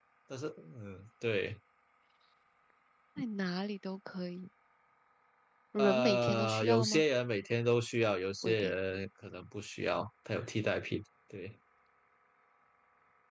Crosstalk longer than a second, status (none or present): present